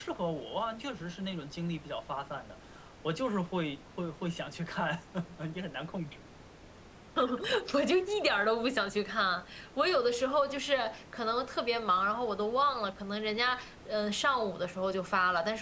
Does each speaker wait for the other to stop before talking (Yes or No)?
Yes